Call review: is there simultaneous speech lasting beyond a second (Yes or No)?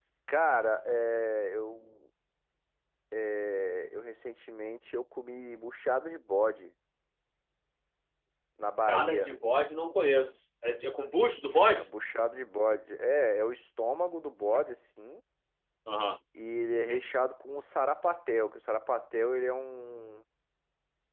No